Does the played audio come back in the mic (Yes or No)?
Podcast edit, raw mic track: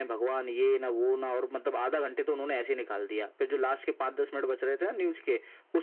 Yes